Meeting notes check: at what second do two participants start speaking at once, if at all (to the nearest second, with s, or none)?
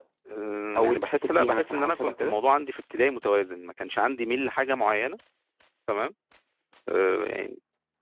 1 s